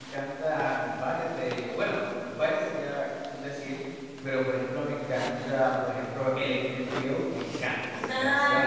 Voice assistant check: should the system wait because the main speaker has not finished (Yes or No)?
No